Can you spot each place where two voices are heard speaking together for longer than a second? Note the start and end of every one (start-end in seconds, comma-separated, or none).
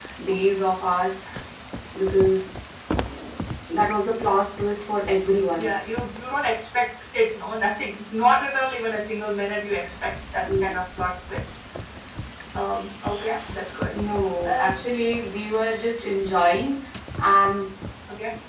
none